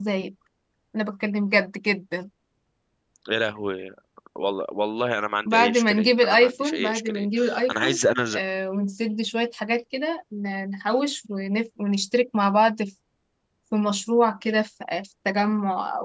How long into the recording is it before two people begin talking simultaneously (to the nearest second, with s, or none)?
5 s